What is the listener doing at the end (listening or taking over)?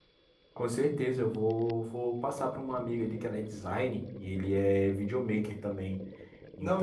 taking over